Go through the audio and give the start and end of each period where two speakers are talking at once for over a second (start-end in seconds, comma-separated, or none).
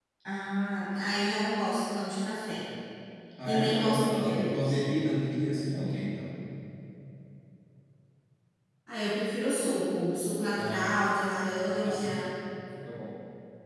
3.4-4.8